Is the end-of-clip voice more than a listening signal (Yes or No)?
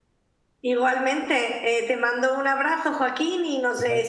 No